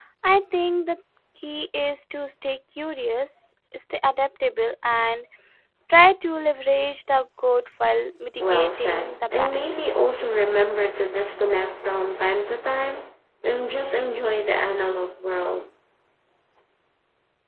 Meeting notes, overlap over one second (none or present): present